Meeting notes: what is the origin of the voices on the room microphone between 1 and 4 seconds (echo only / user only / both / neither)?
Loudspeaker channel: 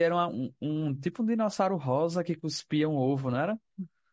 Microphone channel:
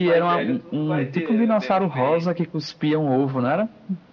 both